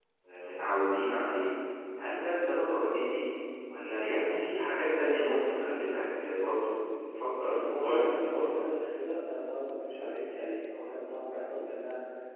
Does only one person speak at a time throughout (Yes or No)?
No